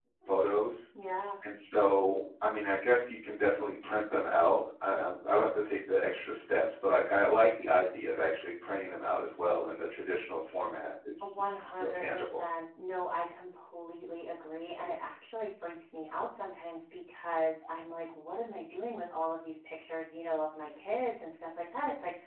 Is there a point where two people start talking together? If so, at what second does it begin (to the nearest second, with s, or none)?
11 s